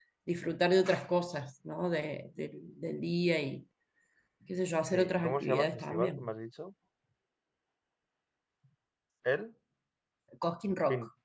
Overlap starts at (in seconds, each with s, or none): 4.9 s